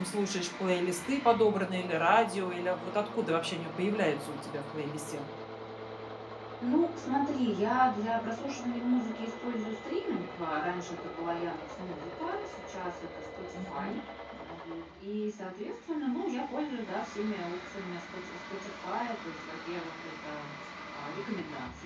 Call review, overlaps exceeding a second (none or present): none